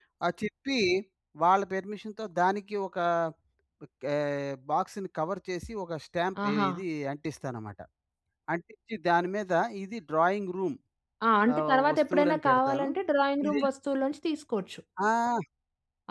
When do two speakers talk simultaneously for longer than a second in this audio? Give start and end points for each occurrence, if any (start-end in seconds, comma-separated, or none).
11.6-12.9